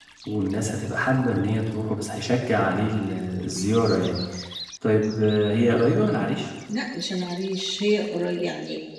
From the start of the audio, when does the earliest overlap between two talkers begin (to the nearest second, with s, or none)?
none